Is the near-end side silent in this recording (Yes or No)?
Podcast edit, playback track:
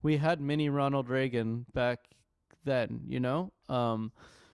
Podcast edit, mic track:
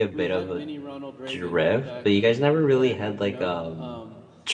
No